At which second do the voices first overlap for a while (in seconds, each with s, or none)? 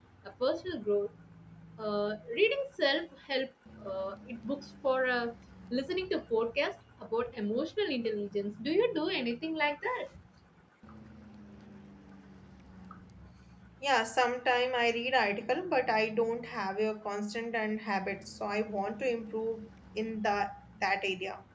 none